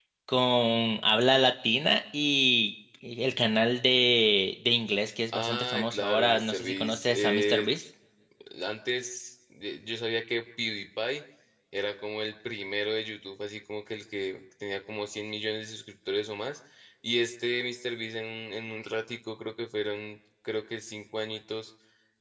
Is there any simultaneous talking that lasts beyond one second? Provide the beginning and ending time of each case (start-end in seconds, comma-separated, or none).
5.3-7.7